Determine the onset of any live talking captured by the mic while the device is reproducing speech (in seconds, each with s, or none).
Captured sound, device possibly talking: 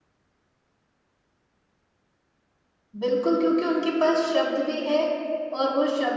3.0 s